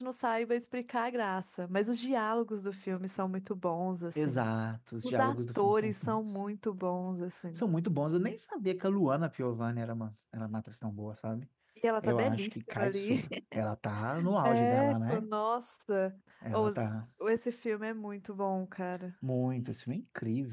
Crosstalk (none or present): present